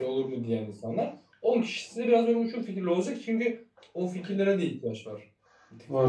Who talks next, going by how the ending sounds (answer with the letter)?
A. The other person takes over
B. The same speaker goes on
A